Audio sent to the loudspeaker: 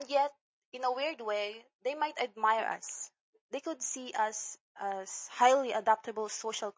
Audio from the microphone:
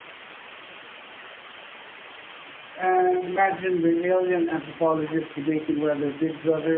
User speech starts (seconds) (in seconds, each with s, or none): 2.7 s